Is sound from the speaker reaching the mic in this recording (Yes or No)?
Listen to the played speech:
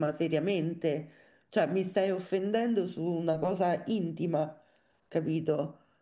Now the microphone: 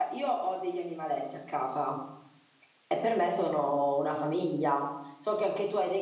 No